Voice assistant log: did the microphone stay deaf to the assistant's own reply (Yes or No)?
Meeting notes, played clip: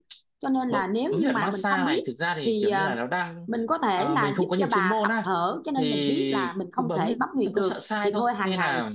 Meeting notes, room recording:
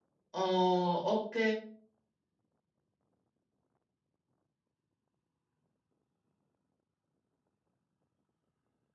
Yes